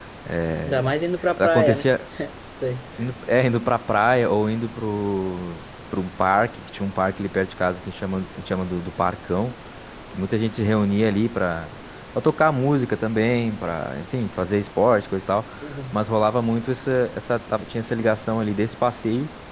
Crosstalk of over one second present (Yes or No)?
No